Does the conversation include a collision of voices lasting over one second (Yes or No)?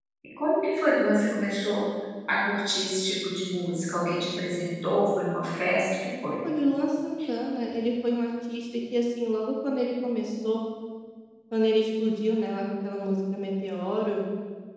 No